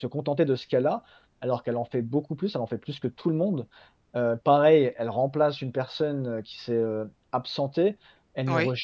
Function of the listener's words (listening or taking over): listening